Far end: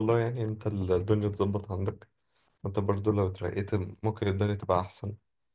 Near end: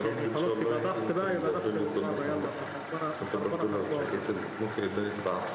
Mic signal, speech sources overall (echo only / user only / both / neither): both